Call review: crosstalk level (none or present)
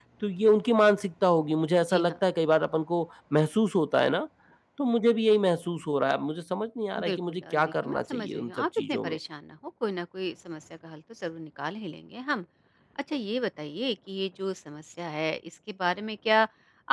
present